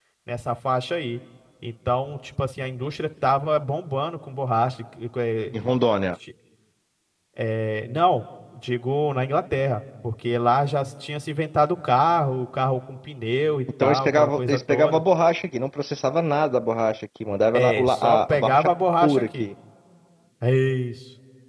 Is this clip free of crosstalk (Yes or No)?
No